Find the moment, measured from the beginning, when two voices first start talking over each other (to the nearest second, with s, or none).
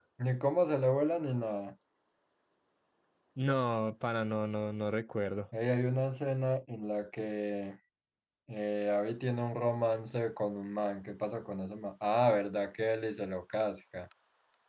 none